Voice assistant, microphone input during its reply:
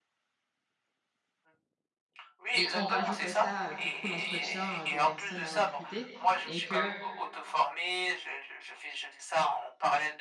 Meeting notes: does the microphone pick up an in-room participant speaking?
Yes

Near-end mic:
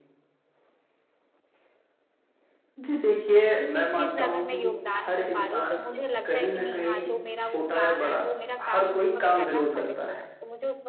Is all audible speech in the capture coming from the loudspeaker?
No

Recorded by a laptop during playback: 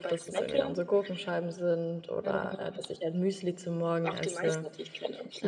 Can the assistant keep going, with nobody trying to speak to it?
No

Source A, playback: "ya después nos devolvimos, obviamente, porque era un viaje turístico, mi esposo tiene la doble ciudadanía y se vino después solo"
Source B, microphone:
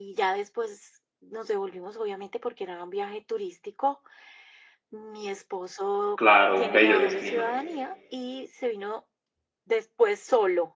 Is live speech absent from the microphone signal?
No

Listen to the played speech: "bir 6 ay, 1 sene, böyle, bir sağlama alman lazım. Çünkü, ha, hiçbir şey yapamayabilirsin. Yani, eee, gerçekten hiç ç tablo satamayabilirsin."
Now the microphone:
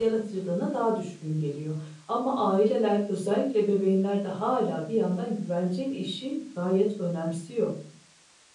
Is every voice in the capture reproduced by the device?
No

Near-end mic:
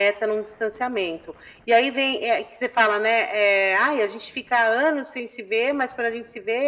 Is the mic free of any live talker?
Yes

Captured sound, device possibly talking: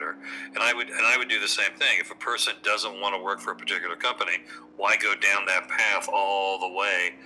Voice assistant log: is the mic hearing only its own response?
Yes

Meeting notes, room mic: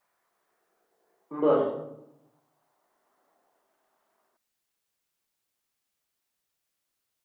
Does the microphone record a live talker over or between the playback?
Yes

